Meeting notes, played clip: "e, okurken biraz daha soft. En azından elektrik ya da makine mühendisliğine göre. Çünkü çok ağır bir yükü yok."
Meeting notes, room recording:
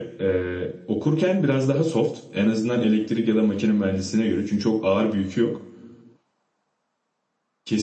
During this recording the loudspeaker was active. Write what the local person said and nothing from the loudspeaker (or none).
none